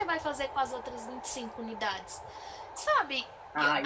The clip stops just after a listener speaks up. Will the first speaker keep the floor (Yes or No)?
Yes